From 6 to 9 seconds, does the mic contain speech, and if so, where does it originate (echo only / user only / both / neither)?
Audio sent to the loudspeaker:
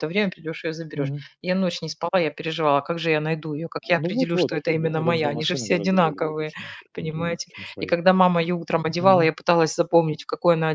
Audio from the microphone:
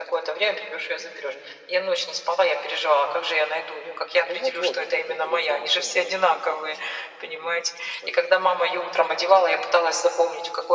echo only